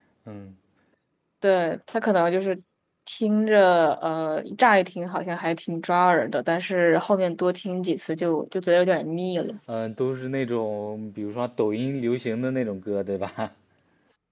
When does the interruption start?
none

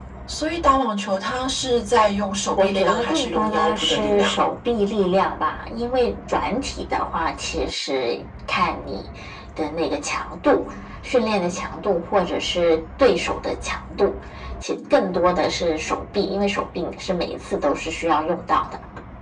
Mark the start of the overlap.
2.5 s

